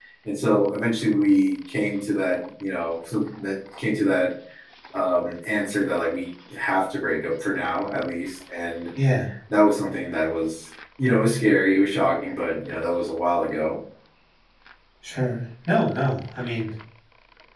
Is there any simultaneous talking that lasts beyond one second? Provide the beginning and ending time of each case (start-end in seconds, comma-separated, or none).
none